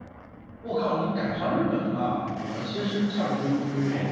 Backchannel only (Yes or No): No